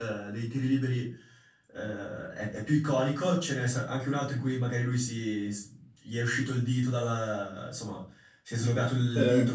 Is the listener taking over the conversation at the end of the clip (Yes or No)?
No